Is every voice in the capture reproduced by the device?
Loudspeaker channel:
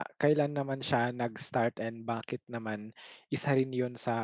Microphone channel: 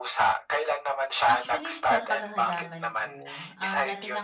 No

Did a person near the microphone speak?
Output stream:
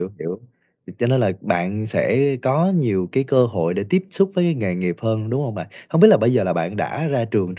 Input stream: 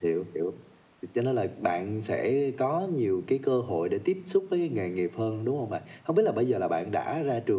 No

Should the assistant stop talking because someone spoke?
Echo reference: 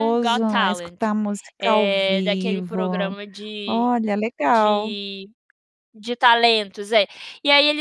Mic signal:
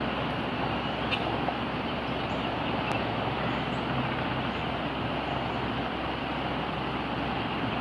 No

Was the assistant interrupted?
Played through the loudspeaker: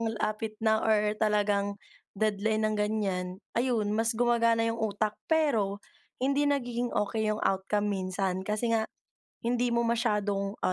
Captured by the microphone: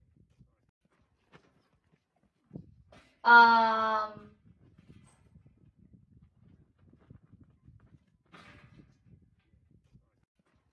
Yes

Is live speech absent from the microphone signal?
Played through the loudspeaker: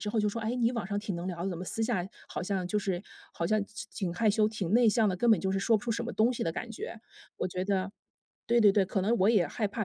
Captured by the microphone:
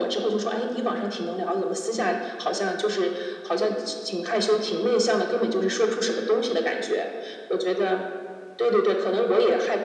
Yes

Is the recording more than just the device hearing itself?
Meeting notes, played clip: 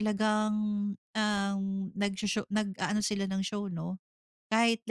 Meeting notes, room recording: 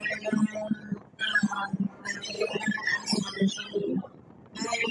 No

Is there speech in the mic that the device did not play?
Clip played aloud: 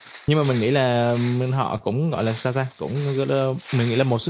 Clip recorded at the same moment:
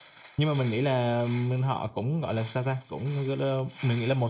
No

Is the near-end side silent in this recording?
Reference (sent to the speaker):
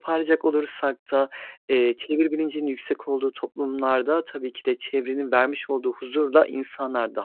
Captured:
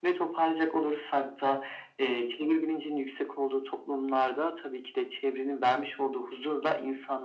Yes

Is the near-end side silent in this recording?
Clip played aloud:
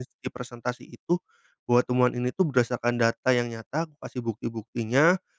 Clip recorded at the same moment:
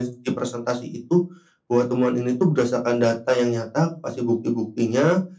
Yes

